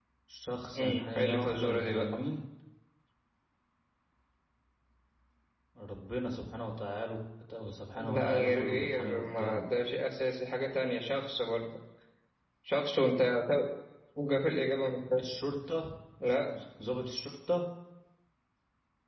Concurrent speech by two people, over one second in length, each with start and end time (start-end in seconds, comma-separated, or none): 0.8-2.2, 8.0-9.6